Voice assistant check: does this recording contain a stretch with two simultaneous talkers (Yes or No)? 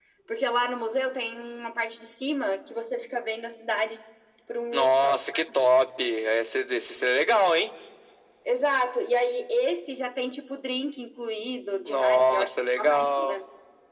Yes